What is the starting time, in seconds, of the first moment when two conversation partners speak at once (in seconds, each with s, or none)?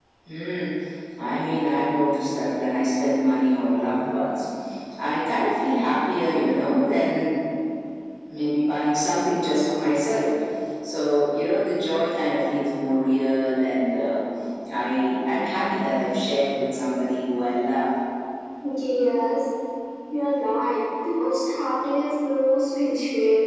none